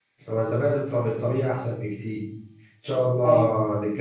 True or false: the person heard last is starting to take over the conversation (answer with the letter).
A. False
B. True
A